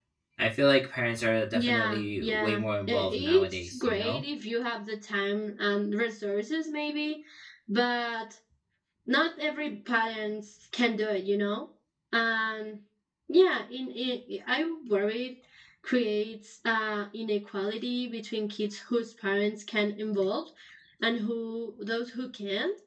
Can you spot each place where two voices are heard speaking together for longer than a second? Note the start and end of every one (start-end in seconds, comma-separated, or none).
1.5-4.2